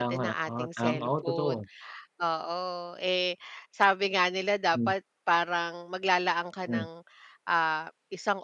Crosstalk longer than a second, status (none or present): present